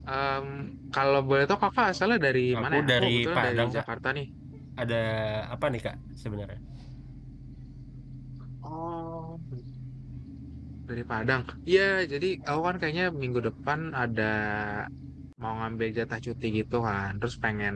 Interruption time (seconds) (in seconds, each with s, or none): 2.5 s